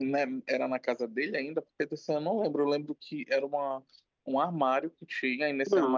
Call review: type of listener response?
listening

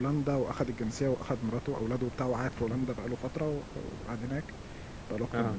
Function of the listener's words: listening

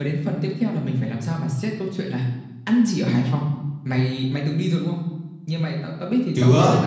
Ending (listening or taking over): listening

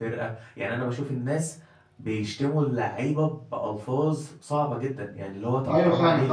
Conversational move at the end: taking over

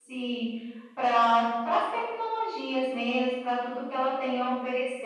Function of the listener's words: listening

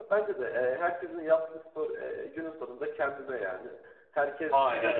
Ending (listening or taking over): listening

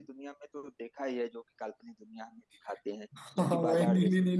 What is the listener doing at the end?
taking over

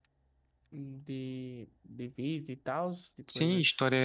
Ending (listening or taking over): taking over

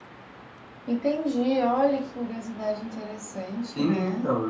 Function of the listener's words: taking over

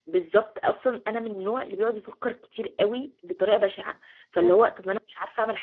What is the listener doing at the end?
listening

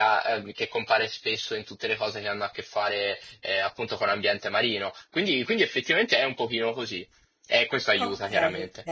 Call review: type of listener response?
taking over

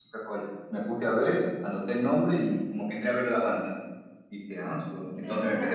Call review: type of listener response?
listening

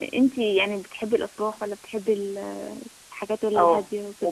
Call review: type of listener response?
taking over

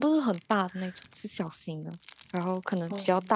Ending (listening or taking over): listening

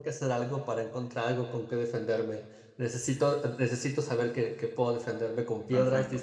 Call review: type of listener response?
taking over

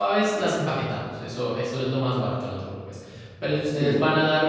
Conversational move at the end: listening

